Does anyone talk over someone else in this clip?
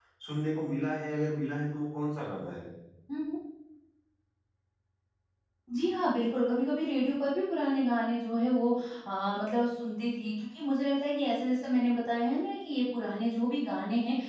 No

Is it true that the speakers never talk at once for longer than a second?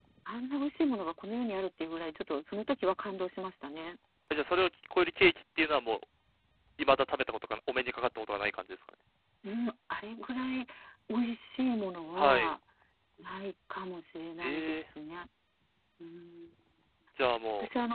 Yes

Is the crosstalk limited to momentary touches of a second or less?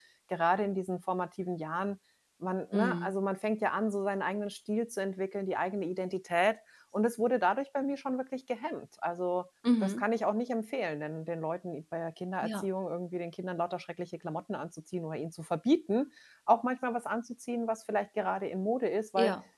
Yes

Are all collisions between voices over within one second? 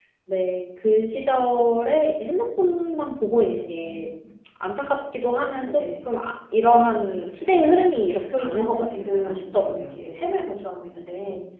No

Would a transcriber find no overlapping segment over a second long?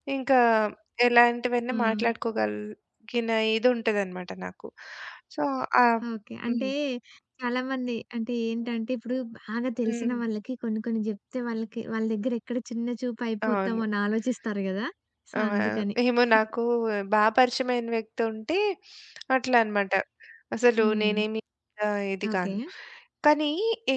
Yes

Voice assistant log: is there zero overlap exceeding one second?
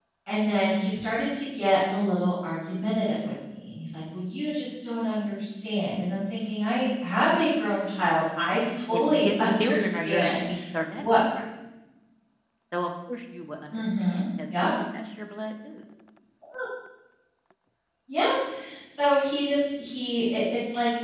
No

